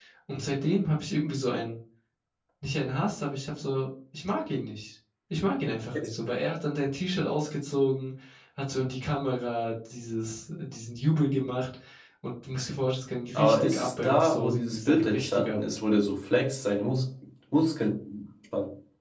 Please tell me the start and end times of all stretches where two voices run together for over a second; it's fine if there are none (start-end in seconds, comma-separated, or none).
13.3-15.6